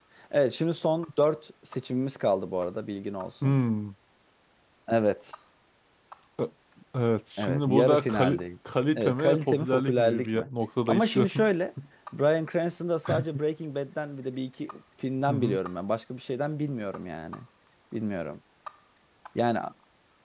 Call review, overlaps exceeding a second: present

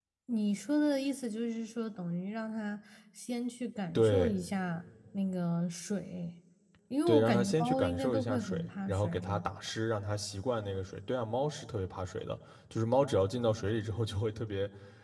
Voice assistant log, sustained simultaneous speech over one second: present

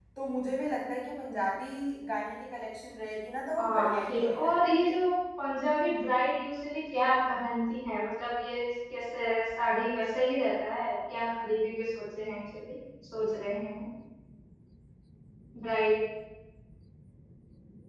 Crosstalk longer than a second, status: present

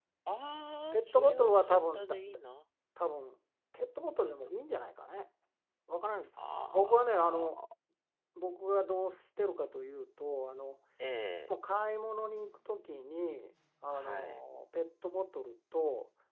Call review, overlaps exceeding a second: present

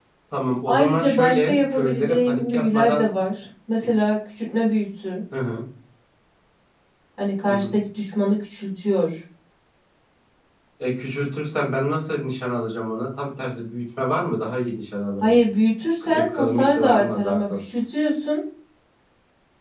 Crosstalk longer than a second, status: present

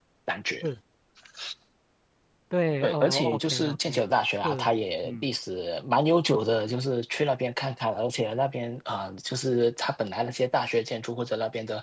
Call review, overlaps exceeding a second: present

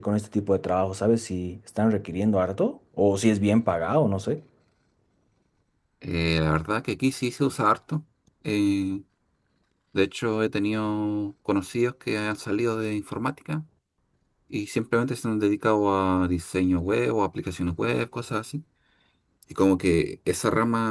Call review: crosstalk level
none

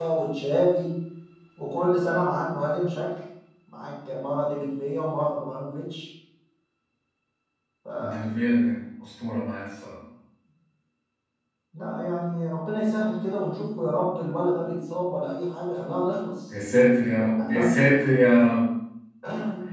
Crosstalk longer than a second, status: none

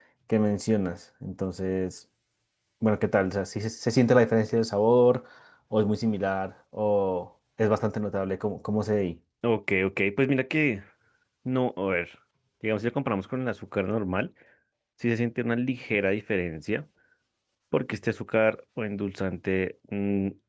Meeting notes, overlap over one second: none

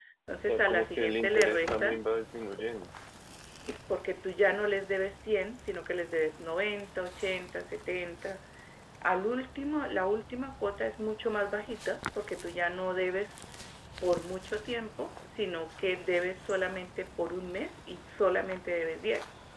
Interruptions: present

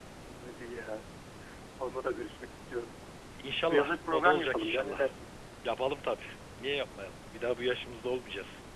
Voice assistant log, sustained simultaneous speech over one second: present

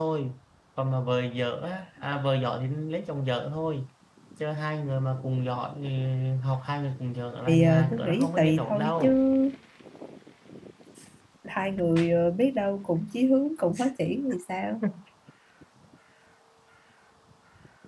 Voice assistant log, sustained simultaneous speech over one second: present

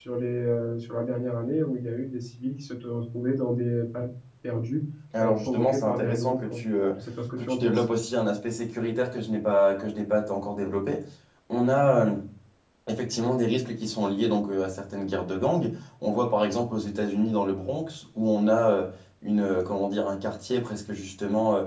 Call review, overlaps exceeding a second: present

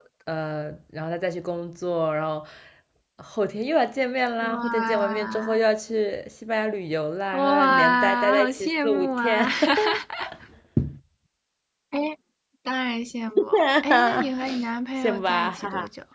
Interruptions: present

